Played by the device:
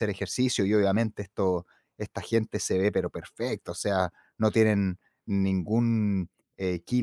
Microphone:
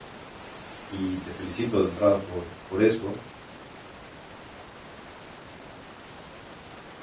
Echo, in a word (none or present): none